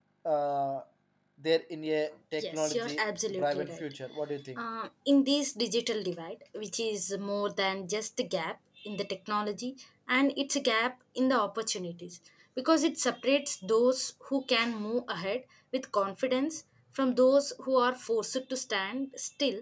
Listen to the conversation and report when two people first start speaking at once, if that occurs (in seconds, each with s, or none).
2.4 s